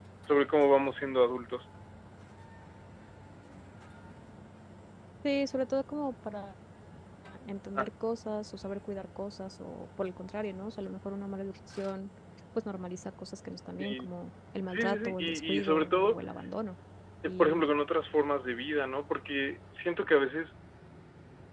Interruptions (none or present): present